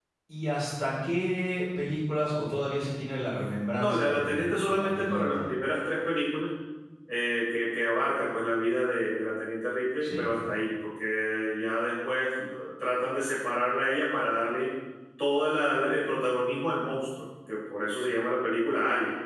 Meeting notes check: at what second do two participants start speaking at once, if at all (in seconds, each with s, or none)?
3.8 s